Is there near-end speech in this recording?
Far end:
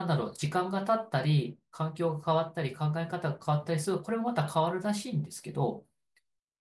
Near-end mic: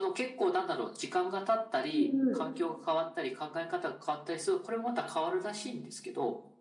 Yes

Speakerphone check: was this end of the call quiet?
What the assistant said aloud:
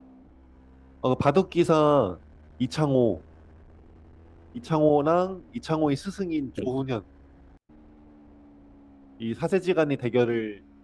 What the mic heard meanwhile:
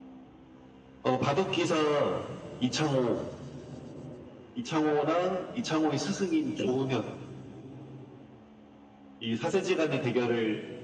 Yes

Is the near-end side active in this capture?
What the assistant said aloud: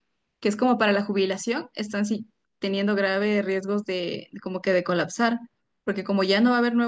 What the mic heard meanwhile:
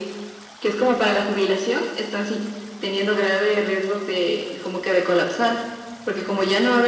No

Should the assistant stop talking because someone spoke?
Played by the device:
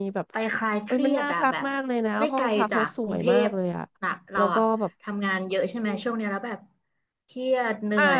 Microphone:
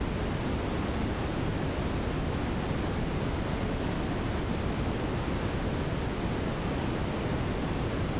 No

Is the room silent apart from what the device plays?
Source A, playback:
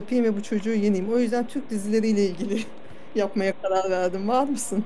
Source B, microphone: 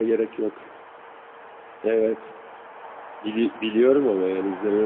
No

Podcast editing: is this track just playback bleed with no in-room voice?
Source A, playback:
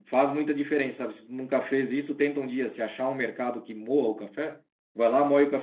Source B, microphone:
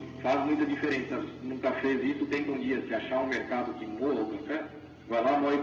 Yes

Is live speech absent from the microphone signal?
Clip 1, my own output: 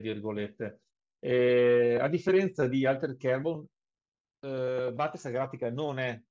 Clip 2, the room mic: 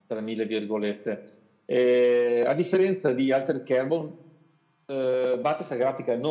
Yes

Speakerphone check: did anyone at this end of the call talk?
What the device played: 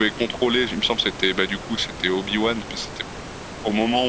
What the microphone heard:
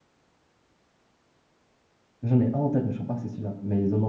Yes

